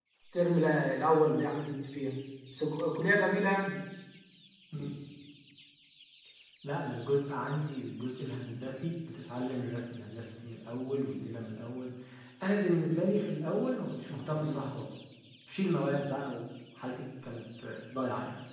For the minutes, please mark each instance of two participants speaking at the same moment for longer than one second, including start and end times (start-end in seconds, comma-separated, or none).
none